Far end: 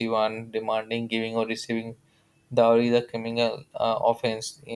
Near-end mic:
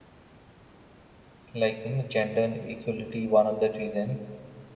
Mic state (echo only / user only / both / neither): user only